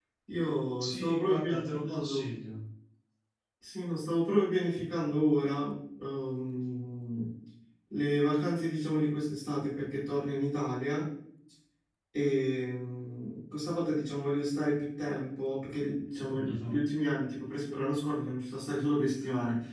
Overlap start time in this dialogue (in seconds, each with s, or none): 0.8 s